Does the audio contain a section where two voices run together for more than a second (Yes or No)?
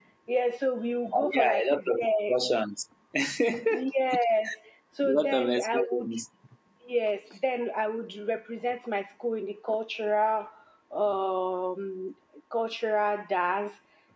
Yes